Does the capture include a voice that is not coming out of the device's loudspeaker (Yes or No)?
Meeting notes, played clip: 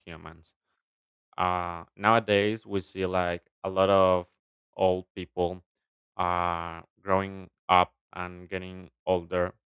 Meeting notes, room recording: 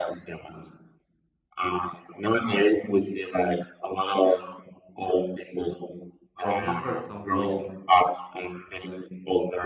Yes